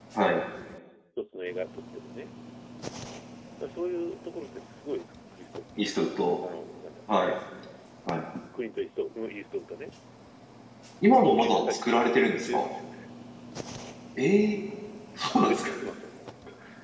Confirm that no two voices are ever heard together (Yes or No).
No